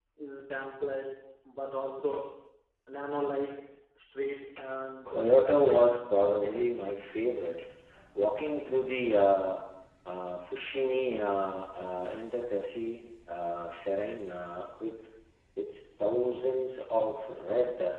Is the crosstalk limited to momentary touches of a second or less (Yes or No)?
No